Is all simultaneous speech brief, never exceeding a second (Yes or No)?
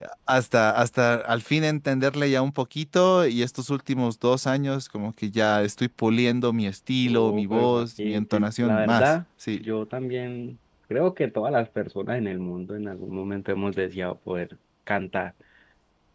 No